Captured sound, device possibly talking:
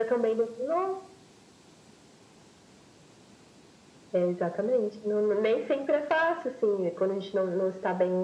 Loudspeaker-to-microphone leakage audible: Yes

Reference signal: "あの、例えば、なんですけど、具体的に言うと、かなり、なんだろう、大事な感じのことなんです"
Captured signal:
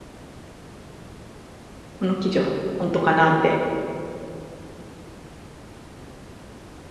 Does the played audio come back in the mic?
No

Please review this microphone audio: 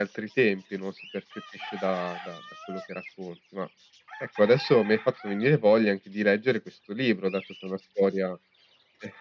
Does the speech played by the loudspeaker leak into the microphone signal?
Yes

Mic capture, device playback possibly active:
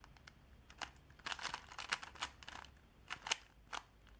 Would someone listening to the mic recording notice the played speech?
No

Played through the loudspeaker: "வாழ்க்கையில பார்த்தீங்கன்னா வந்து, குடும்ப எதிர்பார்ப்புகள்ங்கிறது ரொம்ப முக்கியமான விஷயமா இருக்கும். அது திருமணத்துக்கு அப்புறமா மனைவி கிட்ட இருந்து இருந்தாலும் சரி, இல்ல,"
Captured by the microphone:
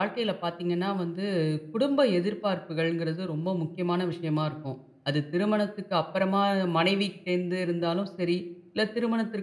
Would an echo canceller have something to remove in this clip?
Yes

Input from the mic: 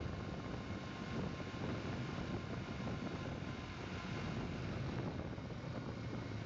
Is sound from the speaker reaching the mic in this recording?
No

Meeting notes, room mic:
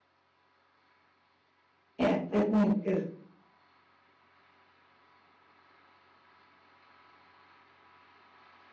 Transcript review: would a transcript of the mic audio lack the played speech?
Yes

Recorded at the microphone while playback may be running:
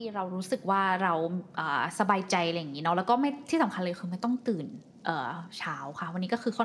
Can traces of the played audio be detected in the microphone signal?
No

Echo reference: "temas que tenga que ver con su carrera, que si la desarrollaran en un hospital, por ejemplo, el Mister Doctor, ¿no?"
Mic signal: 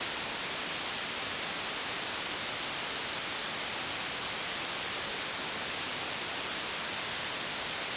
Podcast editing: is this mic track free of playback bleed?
Yes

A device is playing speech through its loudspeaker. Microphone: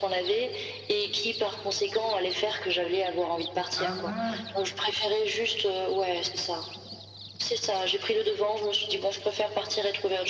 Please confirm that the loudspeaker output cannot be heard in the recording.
No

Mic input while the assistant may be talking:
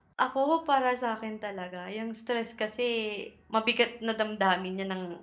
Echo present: No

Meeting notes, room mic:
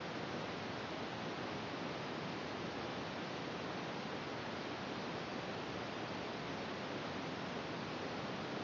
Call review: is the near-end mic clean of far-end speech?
Yes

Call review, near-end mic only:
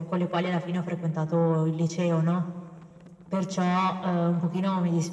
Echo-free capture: No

